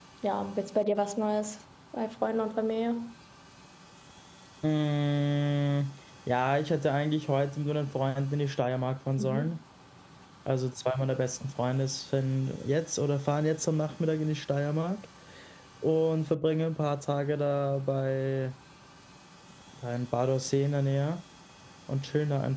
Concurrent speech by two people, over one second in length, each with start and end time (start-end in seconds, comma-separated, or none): none